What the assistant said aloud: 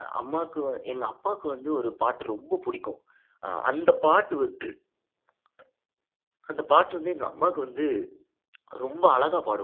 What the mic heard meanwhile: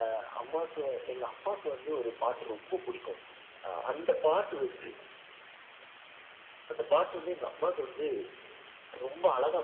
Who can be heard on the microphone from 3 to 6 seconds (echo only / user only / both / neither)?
echo only